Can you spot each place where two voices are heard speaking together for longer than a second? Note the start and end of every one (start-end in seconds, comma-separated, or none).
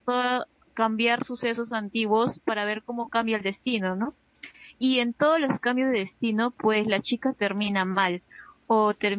none